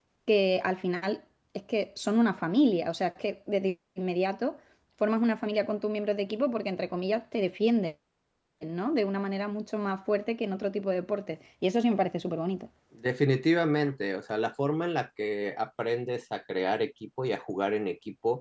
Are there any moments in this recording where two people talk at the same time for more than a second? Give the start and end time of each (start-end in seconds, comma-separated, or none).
none